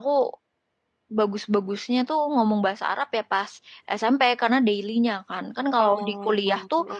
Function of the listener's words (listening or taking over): listening